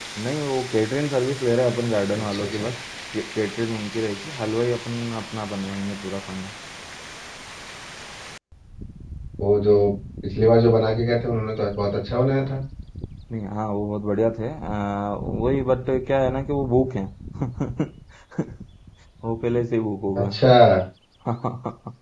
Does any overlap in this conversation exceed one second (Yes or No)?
No